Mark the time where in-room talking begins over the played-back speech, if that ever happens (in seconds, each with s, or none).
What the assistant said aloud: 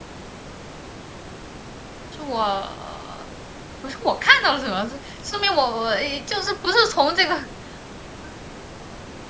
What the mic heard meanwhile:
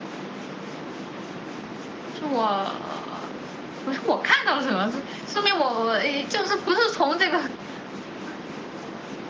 none